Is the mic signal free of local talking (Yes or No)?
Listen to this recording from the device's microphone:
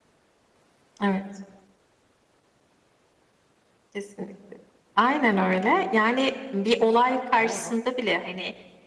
No